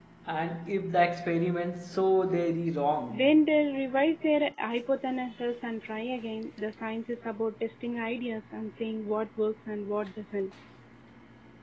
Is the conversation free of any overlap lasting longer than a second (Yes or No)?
Yes